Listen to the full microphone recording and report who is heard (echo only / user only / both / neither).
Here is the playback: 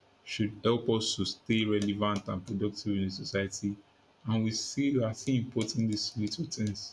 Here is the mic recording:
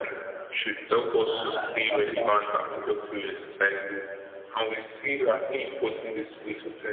both